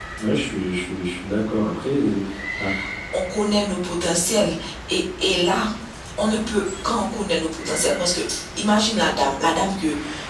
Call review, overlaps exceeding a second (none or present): none